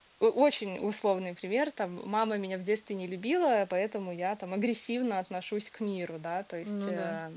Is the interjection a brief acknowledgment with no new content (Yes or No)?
Yes